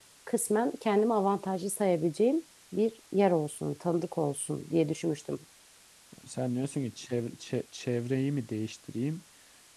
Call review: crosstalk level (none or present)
none